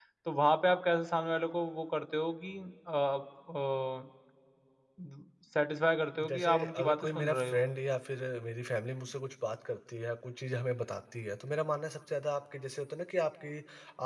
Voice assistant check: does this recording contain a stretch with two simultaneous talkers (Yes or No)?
Yes